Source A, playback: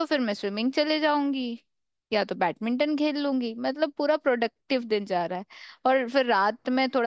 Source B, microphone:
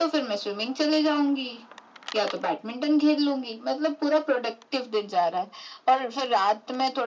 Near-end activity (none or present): none